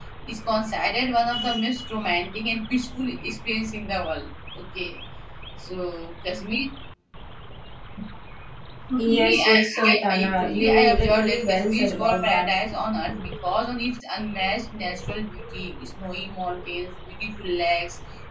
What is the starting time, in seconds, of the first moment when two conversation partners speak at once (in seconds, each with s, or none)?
9.0 s